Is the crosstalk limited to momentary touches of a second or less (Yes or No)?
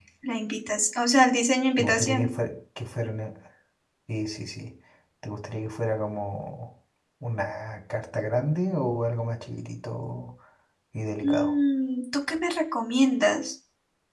Yes